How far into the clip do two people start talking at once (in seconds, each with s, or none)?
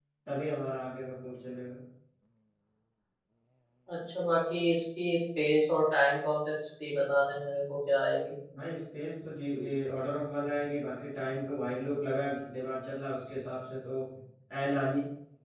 none